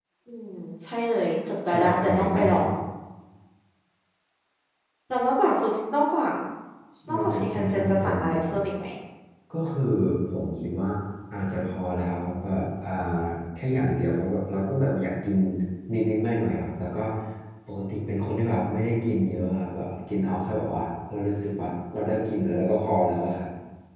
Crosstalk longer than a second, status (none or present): present